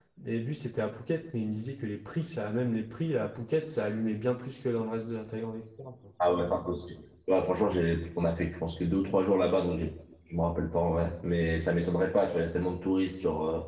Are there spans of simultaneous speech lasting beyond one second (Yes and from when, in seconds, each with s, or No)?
No